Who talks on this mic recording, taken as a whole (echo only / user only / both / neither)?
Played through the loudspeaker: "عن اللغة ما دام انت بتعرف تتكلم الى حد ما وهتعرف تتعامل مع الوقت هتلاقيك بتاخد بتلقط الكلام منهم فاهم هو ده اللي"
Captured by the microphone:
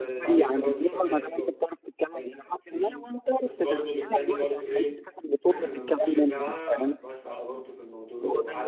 both